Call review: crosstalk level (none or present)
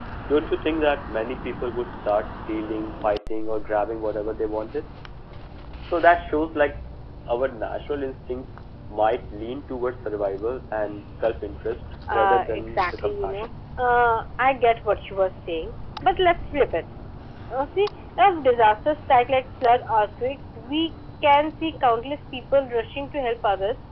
present